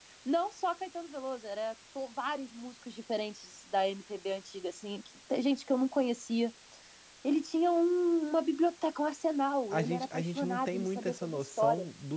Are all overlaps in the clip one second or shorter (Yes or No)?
No